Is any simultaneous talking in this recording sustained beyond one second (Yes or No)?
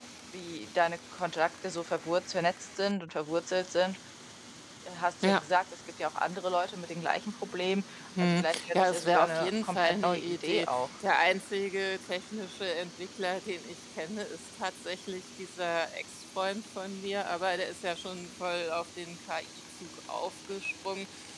Yes